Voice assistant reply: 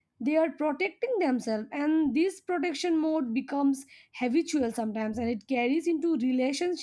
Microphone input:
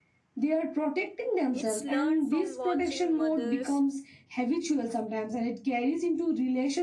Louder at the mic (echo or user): echo